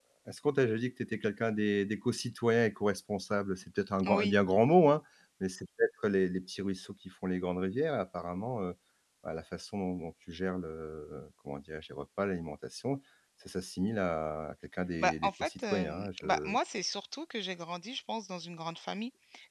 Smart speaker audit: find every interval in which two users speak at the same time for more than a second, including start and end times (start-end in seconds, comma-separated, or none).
15.0-16.6